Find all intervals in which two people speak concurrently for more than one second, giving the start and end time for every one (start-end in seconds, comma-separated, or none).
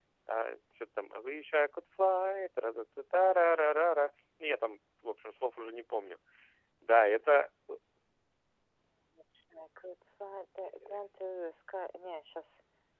none